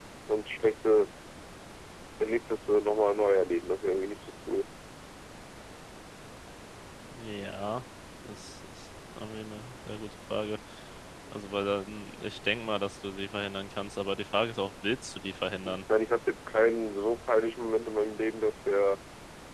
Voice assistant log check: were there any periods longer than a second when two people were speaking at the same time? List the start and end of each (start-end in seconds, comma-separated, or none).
none